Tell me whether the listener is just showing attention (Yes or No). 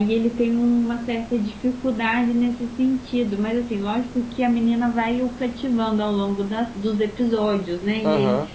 Yes